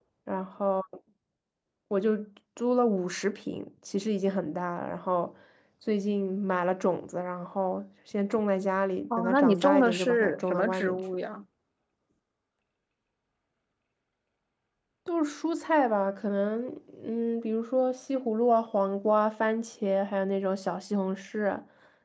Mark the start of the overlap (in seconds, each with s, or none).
9.1 s